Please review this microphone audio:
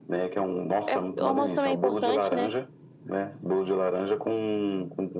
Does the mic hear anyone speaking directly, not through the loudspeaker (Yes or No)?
Yes